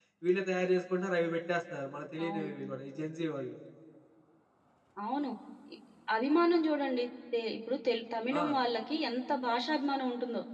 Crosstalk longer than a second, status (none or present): none